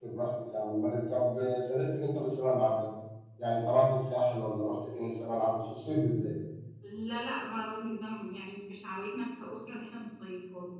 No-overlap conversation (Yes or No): Yes